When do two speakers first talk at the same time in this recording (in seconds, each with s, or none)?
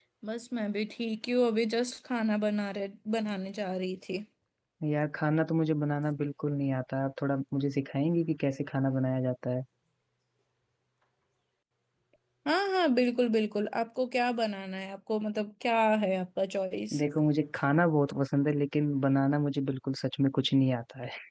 none